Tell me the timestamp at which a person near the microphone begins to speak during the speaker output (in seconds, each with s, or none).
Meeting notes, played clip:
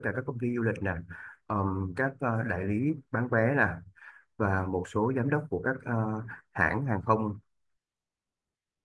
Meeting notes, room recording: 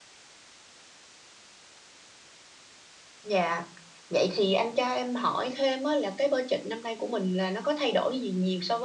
3.2 s